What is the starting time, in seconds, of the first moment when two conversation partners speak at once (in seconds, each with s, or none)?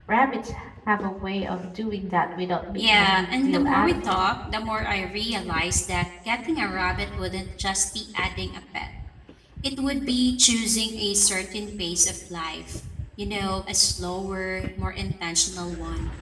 2.8 s